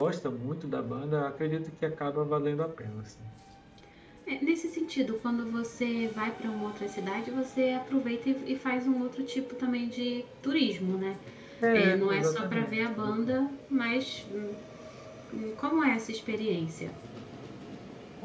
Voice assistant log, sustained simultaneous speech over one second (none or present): present